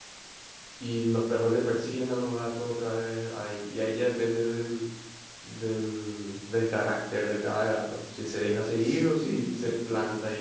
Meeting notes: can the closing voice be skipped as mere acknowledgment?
Yes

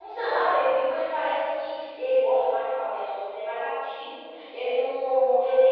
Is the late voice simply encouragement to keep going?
Yes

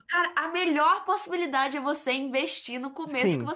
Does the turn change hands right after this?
Yes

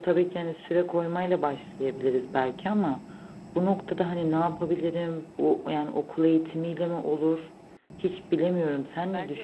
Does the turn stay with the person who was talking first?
No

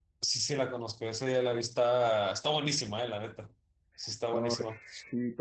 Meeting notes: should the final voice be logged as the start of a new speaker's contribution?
Yes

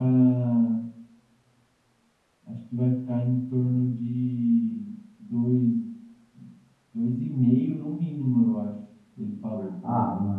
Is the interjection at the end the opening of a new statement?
Yes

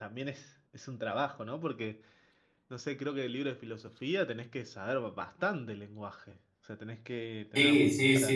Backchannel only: No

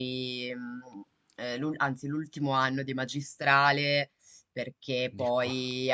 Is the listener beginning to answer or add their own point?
No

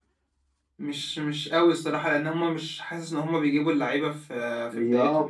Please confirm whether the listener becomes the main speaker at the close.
Yes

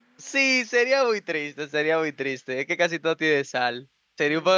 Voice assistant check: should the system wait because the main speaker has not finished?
Yes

